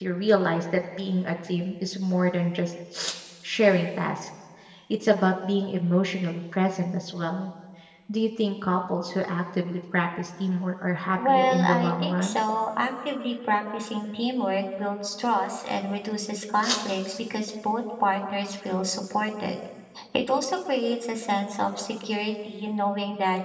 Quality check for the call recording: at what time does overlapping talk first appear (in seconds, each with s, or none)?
11.2 s